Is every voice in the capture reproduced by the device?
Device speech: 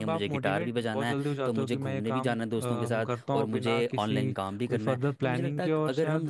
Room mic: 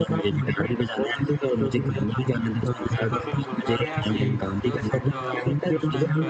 No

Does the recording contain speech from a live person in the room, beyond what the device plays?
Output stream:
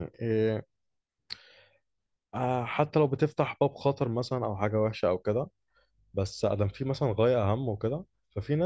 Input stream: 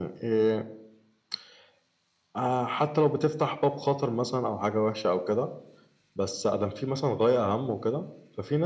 No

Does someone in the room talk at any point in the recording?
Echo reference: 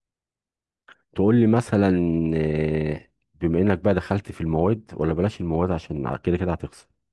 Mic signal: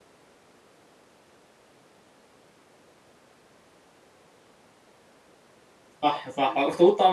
Yes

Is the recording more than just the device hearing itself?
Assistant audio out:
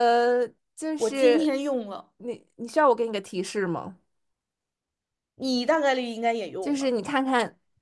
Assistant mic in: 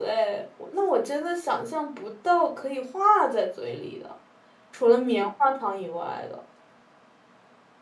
Yes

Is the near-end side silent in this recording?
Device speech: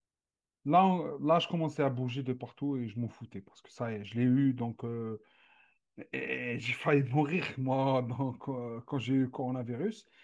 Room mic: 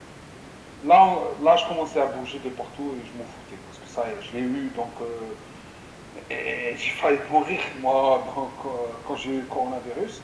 Yes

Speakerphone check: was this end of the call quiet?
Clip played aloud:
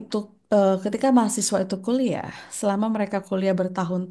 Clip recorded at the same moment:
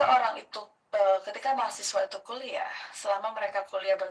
Yes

